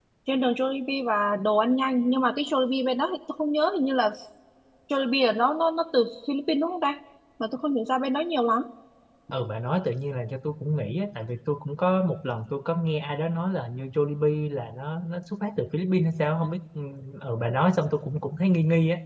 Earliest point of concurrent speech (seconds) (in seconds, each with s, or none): none